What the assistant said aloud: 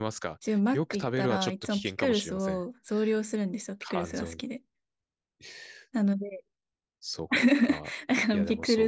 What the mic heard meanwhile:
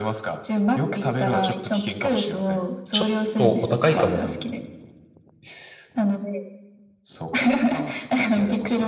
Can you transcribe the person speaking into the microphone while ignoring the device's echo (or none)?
ちょっとお高いかもっ